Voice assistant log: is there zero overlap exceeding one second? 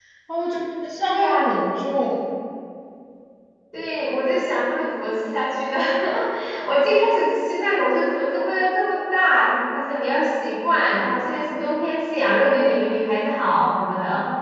Yes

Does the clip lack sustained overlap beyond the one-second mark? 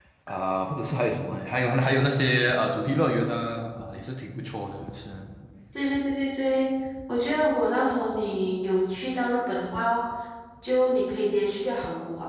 Yes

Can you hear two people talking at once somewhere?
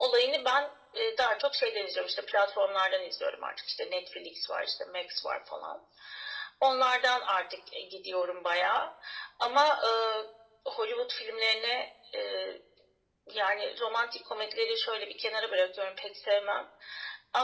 No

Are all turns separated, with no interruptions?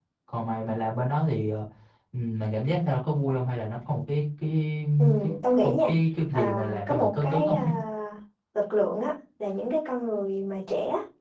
No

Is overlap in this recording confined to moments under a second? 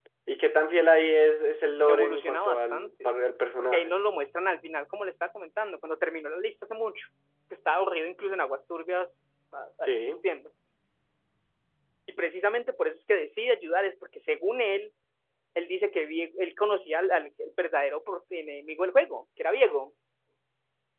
No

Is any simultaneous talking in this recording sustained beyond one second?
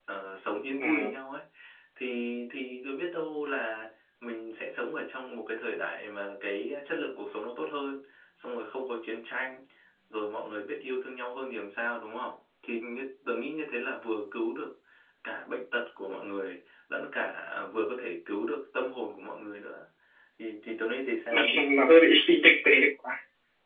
No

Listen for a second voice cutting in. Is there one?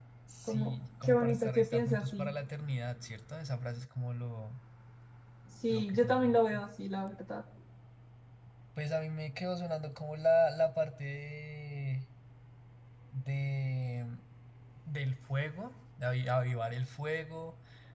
Yes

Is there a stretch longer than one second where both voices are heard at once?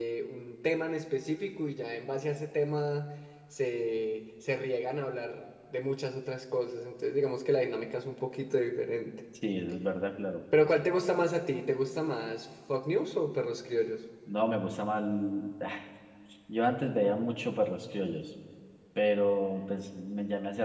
No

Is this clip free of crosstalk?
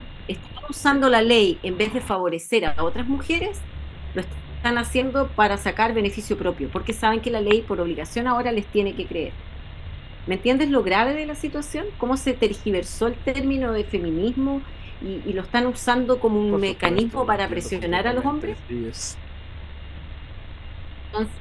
No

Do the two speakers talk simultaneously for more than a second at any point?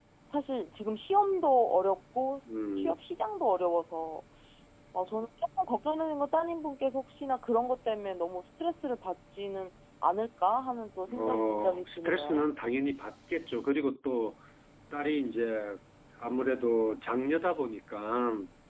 Yes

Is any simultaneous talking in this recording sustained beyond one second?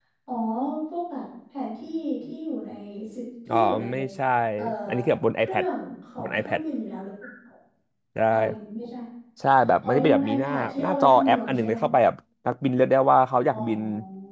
Yes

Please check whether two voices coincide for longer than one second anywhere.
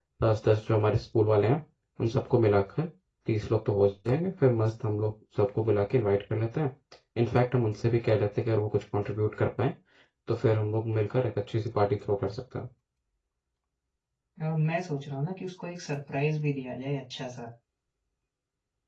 No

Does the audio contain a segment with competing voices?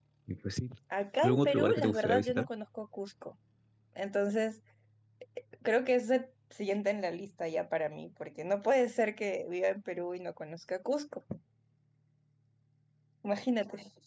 Yes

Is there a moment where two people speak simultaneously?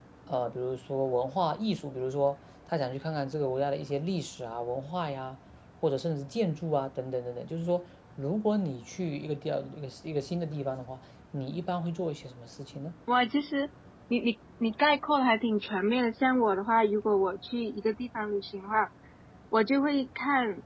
No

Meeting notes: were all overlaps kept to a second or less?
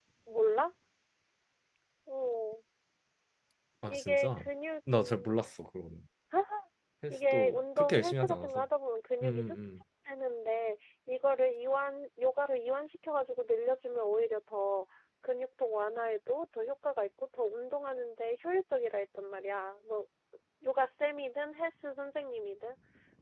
No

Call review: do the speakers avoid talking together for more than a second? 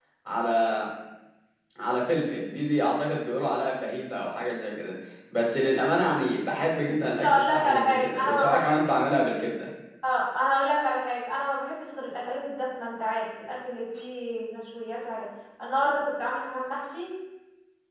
No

